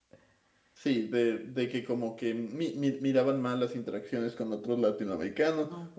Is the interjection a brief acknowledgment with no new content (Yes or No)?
Yes